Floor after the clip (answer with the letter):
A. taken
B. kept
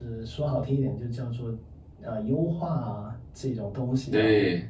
B